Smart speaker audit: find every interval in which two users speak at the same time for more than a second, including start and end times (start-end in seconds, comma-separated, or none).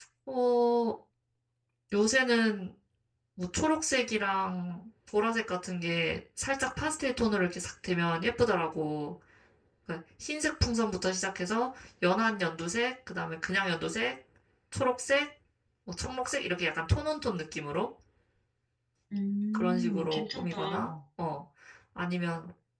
19.5-20.9